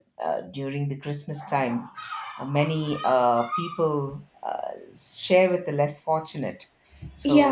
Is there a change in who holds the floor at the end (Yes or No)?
Yes